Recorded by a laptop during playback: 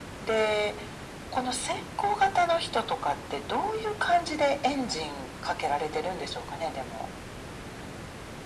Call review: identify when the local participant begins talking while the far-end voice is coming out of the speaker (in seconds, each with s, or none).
none